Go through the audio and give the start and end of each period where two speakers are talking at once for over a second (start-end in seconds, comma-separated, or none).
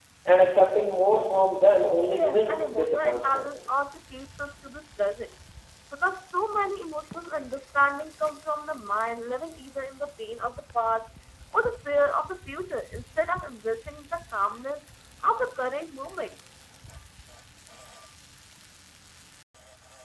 2.1-3.5